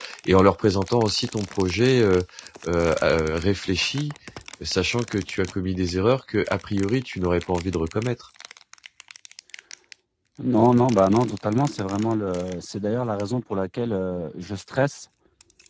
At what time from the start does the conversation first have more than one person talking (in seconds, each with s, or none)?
none